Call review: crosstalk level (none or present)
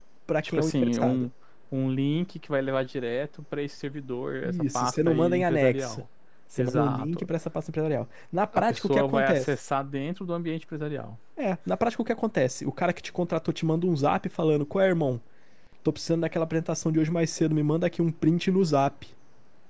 present